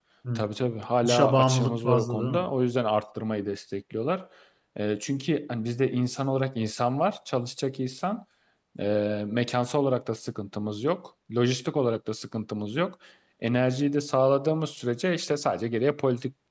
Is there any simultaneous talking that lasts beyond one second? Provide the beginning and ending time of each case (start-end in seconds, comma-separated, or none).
1.0-2.5